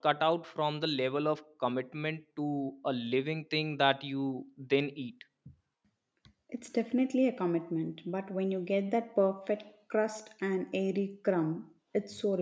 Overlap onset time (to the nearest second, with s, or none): none